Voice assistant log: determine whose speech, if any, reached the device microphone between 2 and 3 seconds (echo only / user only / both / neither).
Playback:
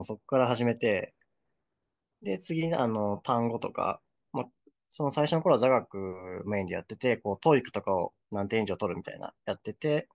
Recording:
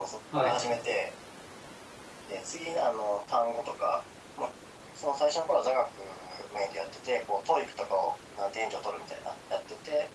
echo only